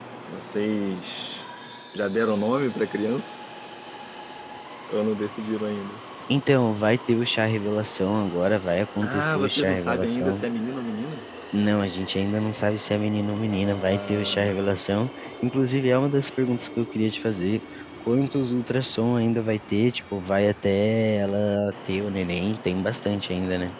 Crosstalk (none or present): present